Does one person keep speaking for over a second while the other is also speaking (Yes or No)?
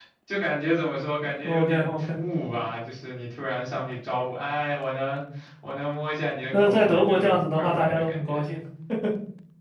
Yes